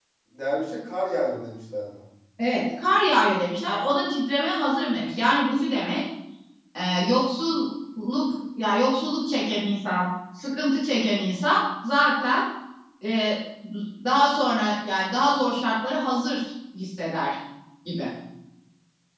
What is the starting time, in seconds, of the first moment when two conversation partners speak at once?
none

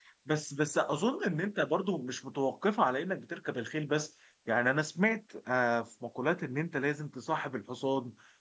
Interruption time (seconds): none

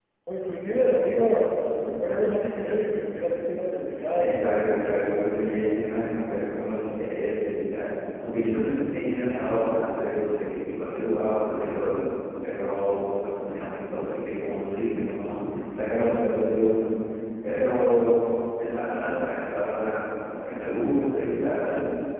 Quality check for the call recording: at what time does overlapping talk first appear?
4.2 s

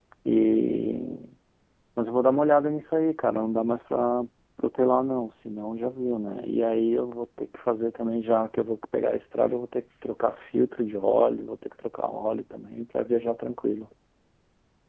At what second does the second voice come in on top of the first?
none

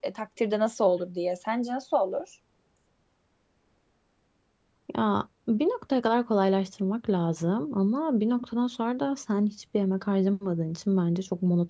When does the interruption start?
none

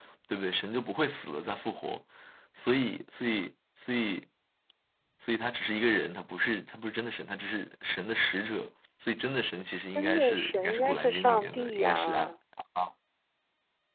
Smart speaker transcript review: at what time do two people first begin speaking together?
9.9 s

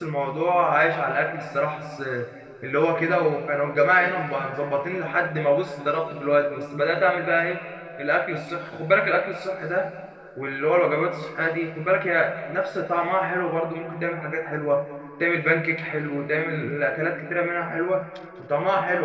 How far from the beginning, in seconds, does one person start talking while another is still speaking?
none

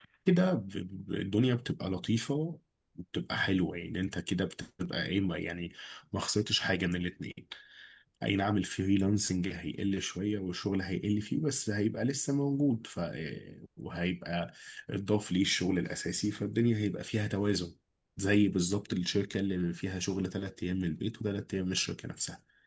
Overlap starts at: none

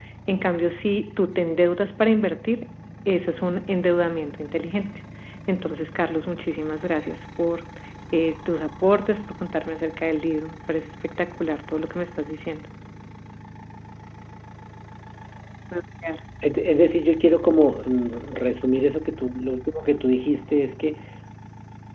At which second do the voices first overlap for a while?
none

